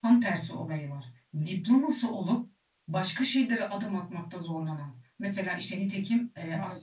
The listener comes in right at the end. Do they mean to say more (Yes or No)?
No